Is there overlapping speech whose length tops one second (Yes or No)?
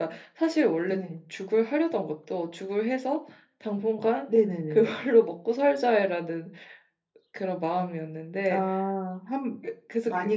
No